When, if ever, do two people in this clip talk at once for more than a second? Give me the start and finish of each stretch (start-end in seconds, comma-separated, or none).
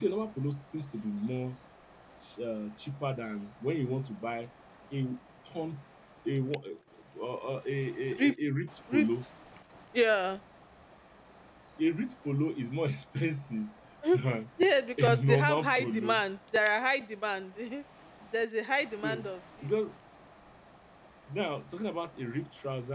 15.0-16.2